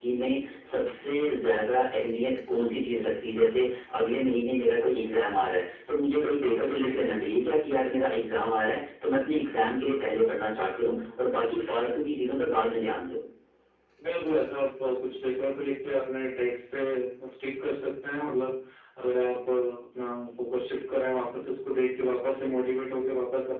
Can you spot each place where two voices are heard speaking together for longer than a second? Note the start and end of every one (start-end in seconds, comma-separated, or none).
none